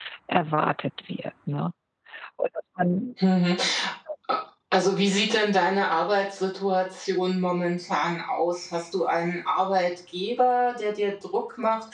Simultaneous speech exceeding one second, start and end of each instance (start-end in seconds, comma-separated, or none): none